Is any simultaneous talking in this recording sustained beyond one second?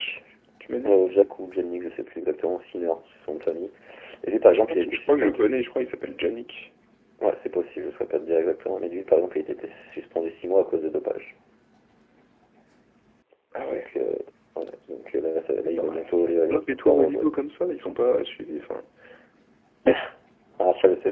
Yes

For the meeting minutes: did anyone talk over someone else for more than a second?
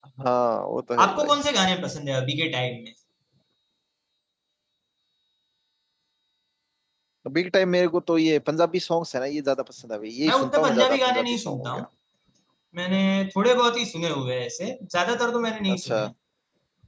Yes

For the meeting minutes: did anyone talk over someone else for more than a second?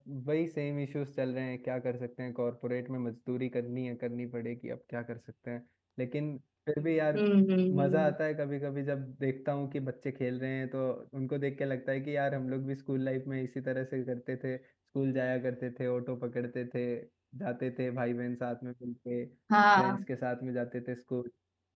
No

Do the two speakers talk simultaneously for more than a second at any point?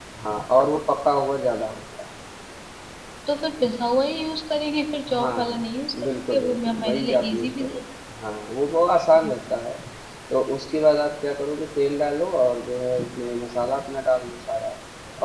Yes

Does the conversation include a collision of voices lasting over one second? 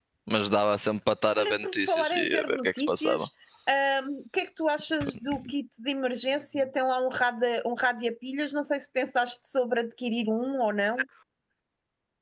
Yes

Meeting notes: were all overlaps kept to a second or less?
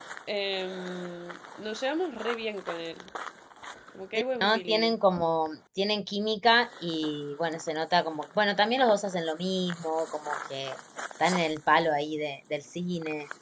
Yes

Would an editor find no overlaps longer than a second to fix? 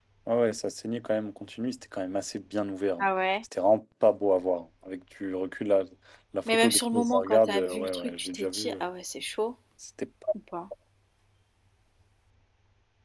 No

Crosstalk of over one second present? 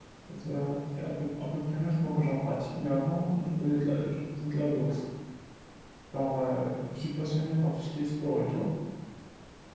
No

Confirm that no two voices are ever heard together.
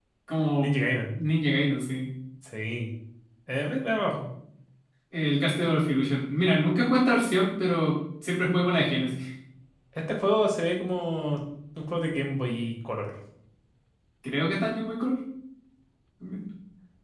Yes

